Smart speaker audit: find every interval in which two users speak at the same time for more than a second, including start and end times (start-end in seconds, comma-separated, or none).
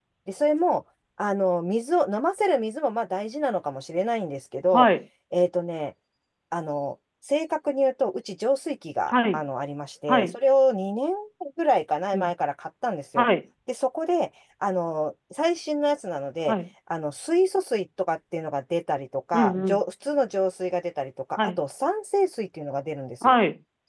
none